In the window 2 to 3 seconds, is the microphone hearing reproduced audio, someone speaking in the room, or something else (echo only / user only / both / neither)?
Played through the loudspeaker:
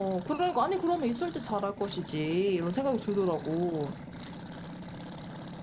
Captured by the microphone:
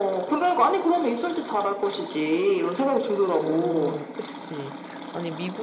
echo only